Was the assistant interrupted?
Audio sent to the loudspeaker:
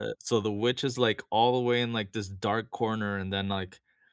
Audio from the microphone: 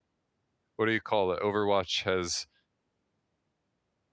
Yes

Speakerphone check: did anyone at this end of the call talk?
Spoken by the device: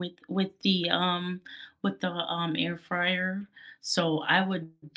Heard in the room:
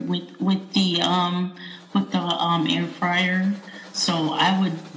No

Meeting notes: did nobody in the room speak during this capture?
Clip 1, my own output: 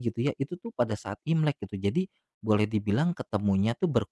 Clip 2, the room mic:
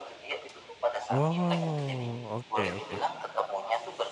No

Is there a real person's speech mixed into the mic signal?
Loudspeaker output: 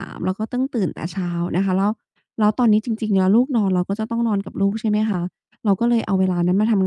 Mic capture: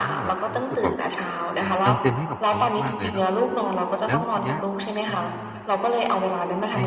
Yes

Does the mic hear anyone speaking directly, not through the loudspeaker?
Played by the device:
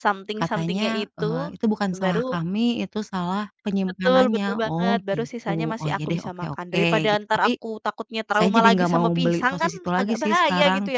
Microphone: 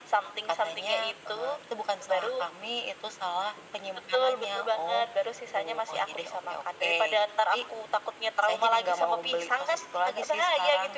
No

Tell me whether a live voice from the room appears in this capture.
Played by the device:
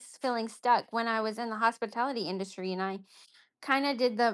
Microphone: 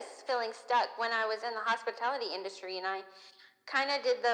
No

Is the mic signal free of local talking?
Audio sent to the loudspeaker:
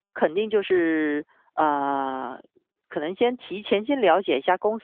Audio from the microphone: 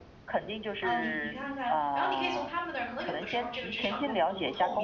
No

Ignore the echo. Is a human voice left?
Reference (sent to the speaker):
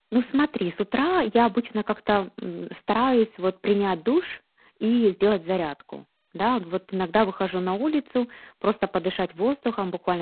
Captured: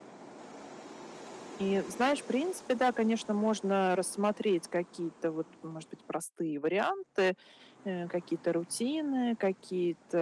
Yes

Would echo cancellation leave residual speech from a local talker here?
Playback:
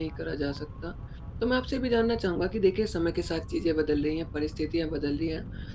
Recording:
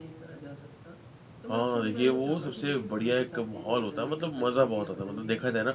Yes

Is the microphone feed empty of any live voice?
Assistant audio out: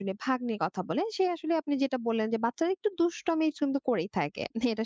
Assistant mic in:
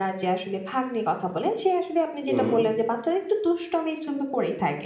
No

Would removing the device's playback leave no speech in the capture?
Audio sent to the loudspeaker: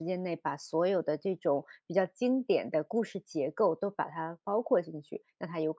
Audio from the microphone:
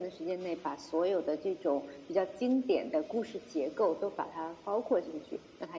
Yes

